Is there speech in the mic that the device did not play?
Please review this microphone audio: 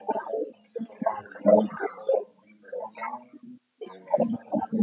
No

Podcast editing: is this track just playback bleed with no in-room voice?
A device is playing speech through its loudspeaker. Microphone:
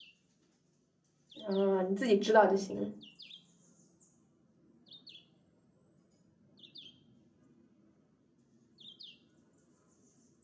No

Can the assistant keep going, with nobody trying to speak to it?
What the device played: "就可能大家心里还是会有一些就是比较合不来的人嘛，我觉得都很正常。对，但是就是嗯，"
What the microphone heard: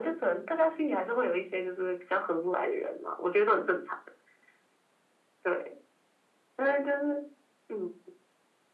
Yes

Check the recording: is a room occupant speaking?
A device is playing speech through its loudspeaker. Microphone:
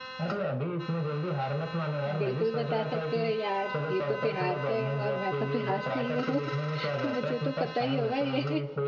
Yes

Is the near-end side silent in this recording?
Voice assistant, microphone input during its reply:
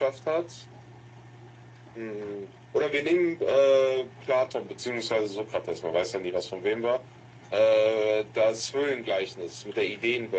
Yes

